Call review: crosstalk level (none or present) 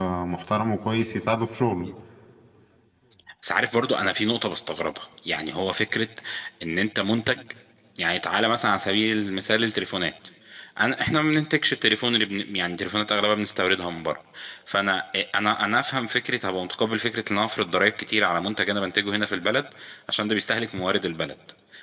none